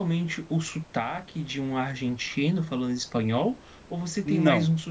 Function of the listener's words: listening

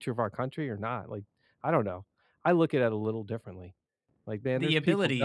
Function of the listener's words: listening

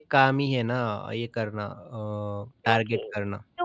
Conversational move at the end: taking over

